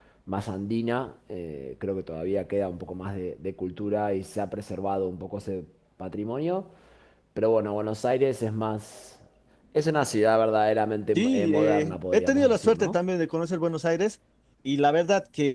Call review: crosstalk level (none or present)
present